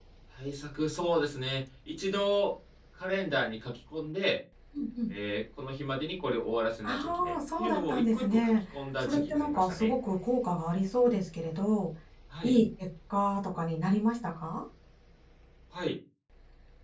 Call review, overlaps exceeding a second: present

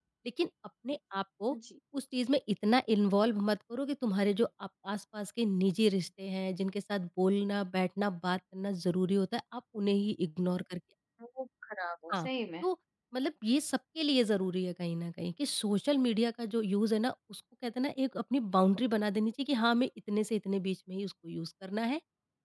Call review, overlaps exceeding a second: none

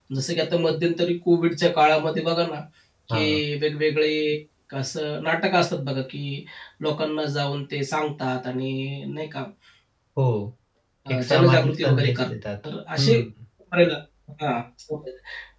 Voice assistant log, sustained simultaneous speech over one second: present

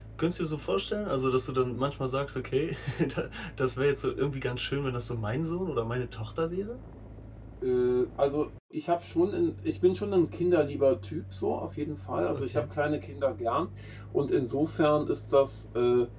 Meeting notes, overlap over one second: none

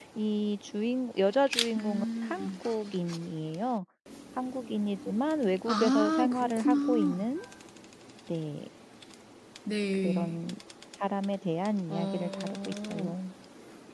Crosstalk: present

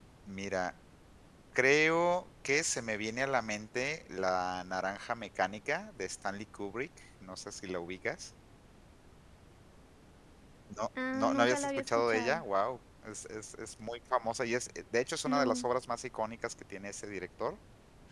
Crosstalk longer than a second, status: present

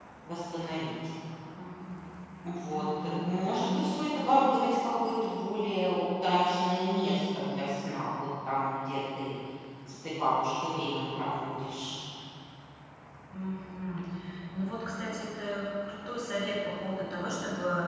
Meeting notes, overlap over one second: none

